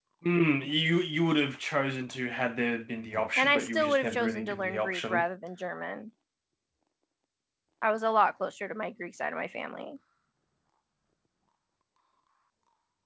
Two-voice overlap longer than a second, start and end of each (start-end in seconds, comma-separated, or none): 3.4-5.2